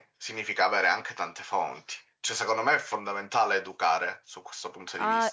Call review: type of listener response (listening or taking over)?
taking over